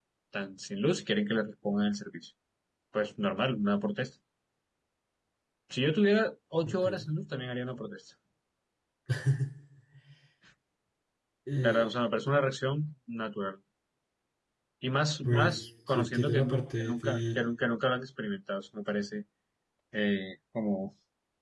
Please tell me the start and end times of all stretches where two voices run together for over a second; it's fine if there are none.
15.2-17.4

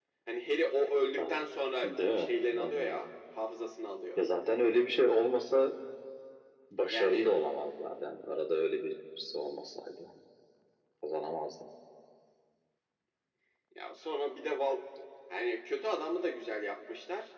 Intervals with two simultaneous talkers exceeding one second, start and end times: 1.8-3.1

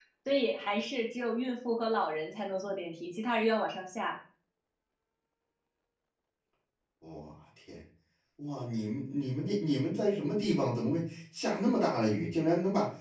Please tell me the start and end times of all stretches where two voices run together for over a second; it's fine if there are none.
none

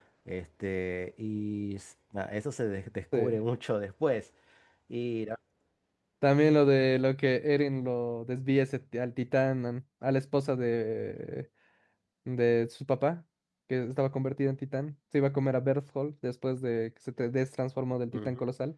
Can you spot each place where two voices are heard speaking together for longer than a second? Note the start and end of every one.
none

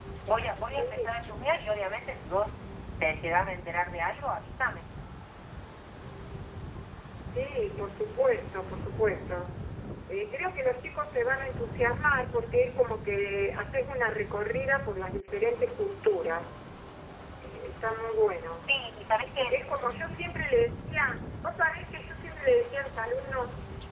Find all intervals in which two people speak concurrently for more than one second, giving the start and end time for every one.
none

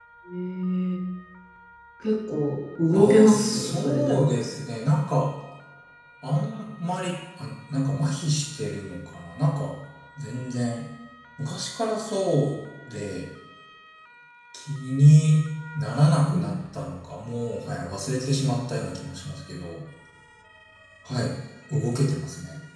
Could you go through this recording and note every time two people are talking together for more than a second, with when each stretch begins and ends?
2.9-4.3

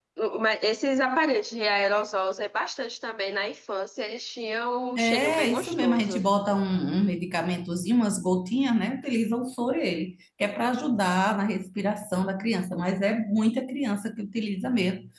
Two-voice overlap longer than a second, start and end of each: 5.0-6.2

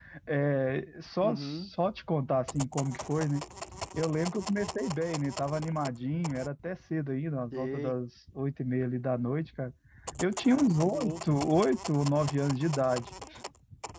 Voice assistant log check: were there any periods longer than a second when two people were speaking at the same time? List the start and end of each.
none

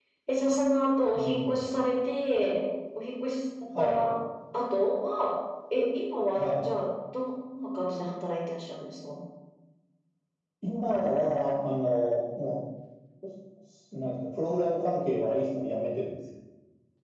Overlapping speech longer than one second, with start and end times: none

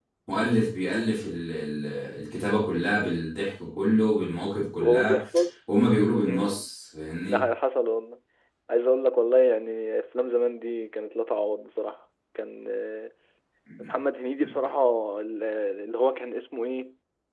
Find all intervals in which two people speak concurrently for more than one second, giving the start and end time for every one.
none

